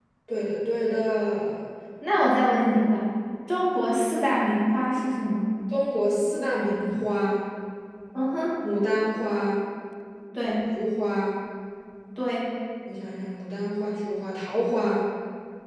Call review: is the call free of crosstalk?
Yes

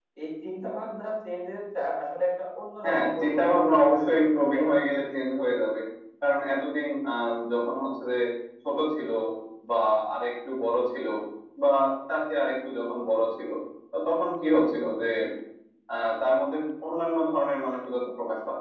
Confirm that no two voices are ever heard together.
No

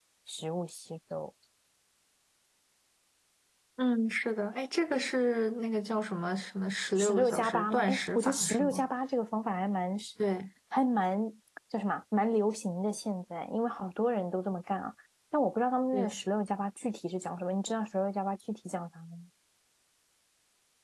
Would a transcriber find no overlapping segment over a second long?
No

